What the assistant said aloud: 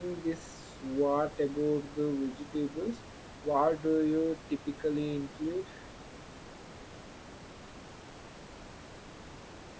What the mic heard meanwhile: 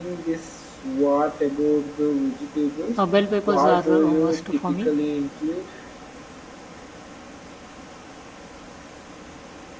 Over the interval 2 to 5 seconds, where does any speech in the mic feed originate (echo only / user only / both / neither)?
both